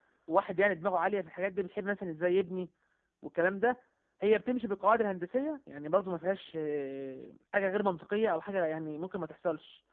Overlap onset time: none

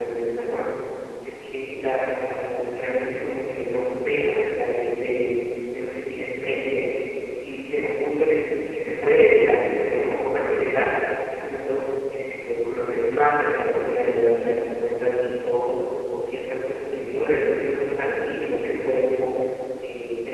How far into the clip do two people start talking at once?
none

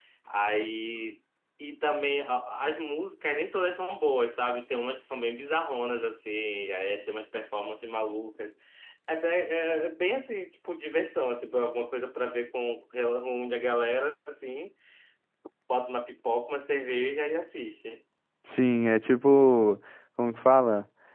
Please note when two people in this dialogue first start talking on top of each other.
none

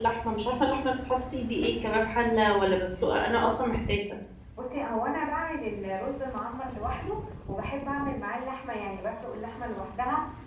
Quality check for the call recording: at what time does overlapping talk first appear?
none

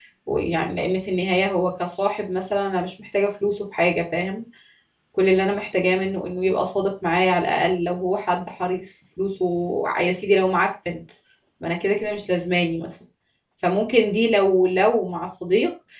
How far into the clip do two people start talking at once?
none

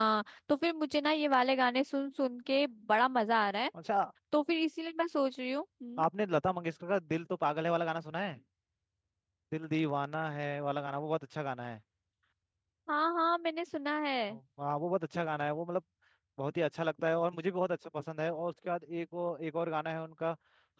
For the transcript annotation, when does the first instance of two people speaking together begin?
none

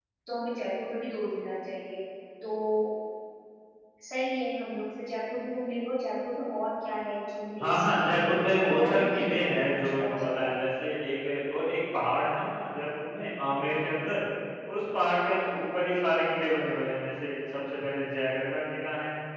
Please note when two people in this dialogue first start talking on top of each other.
8 s

